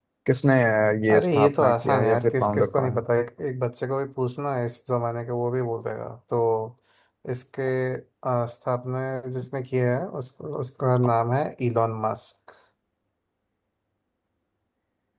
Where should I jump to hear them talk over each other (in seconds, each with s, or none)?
1.1 s